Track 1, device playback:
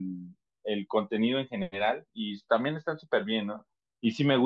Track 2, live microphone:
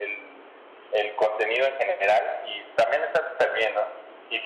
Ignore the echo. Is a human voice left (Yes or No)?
No